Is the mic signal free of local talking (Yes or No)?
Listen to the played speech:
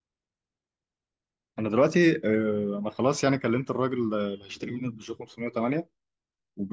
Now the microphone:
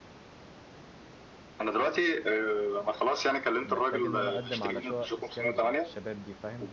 No